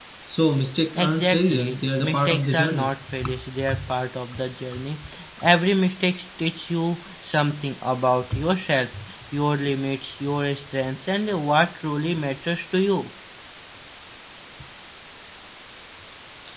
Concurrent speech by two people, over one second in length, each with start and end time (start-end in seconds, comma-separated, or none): 0.9-2.9